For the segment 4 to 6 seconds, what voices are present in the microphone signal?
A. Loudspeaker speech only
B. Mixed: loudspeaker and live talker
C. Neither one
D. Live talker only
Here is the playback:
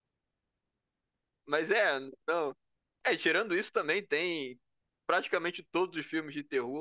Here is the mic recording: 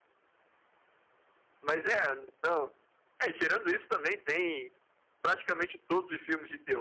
A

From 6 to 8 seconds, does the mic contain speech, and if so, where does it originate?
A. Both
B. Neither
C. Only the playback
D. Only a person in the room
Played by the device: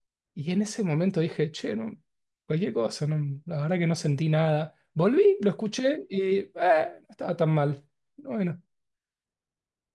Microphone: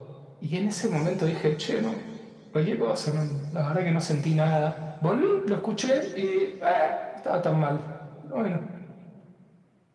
C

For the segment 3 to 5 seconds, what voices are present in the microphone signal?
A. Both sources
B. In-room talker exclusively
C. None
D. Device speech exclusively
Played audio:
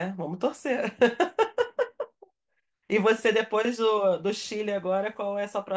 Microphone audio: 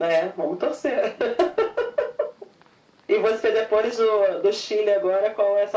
D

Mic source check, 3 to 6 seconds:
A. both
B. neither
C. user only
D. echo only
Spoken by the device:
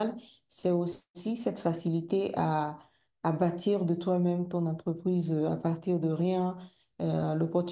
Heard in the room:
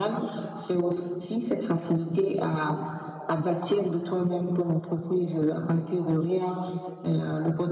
D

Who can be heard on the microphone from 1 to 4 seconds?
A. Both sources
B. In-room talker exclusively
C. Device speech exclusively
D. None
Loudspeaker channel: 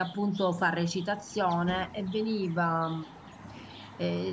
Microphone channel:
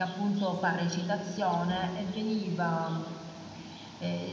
C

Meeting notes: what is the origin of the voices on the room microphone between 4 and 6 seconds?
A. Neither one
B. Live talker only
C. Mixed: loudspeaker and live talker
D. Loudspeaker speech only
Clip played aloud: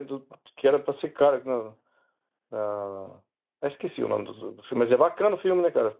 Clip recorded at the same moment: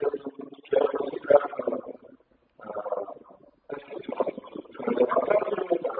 D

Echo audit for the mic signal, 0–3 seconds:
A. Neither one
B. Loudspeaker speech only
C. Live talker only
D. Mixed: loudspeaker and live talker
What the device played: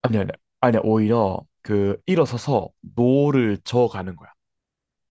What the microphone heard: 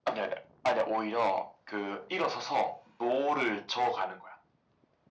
B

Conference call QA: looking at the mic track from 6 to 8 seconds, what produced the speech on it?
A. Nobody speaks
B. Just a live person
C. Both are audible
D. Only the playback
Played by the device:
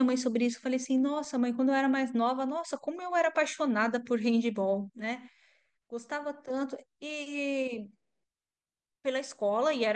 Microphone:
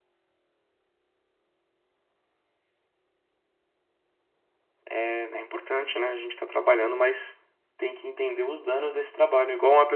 B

